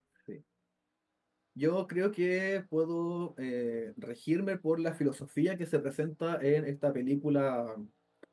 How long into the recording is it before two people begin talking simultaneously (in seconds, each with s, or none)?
none